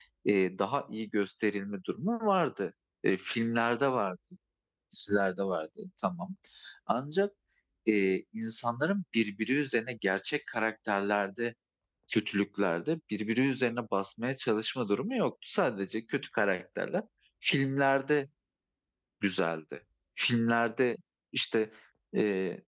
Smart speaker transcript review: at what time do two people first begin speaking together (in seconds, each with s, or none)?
none